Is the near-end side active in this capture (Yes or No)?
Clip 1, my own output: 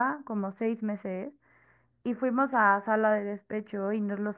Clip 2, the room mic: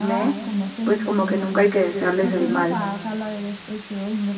Yes